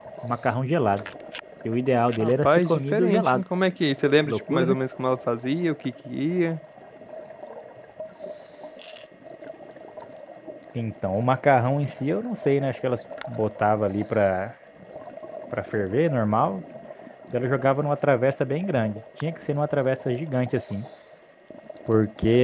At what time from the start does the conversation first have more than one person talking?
2.2 s

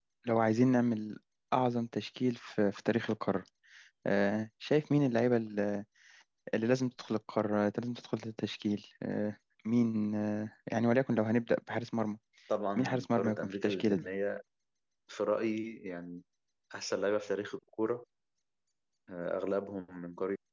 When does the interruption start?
12.8 s

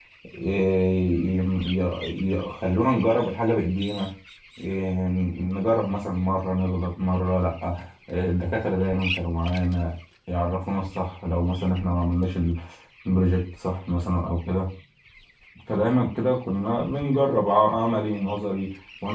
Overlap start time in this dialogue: none

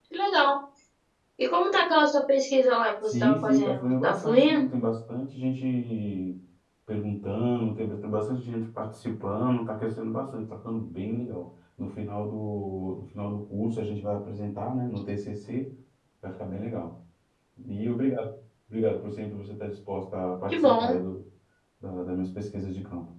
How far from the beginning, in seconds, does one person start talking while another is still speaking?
3.0 s

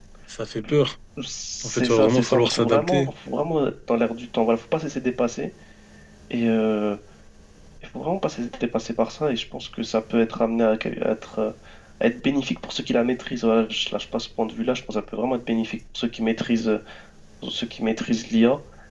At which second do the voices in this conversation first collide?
1.6 s

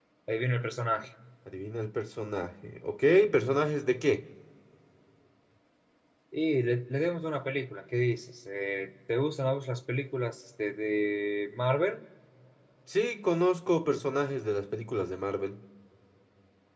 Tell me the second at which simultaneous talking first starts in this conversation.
none

